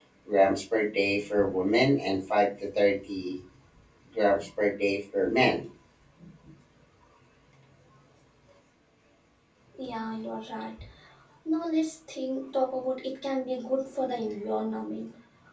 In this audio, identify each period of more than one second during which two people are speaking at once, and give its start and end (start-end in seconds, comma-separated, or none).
none